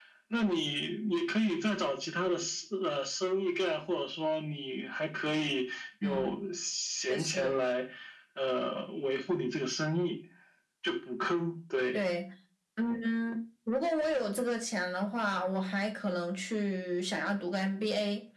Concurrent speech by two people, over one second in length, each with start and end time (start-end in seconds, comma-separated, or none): none